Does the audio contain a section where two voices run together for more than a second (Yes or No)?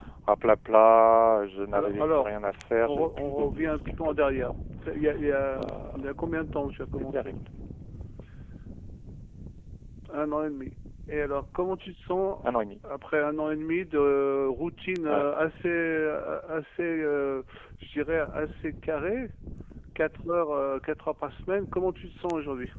Yes